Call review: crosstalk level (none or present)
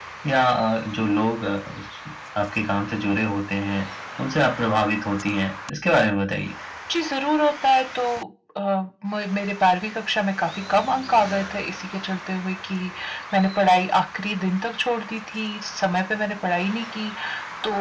none